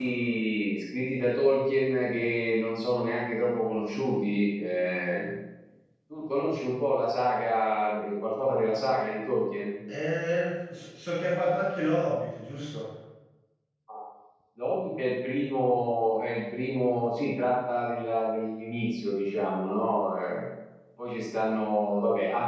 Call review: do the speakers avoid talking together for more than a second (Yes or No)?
Yes